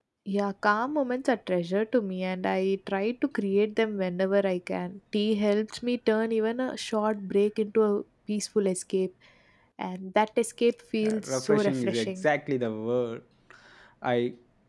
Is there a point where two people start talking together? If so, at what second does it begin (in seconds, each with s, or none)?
11.0 s